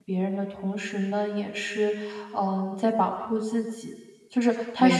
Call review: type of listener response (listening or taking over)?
taking over